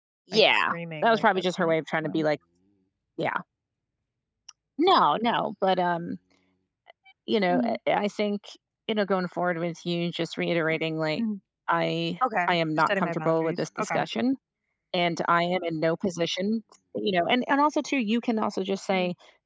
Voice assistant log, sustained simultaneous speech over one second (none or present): present